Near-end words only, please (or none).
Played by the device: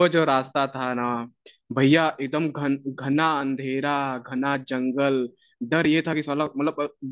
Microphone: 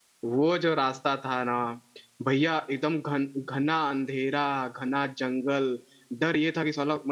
none